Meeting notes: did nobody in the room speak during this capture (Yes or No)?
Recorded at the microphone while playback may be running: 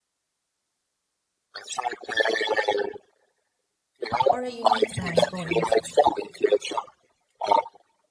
No